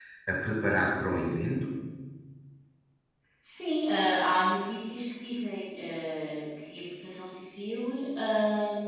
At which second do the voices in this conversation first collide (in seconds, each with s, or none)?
none